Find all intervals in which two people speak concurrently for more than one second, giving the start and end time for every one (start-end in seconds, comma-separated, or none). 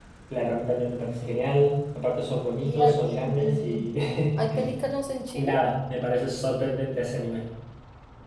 2.6-3.9